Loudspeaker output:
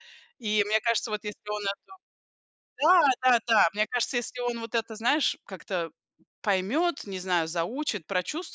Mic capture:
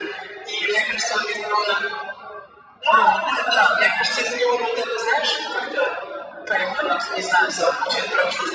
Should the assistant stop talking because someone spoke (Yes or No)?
Yes